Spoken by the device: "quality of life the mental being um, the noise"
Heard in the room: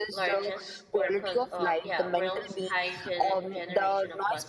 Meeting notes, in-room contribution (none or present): present